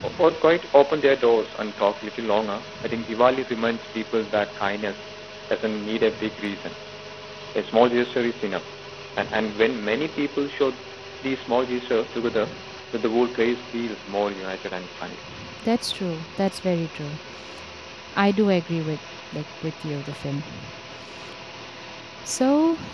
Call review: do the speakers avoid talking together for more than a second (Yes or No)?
Yes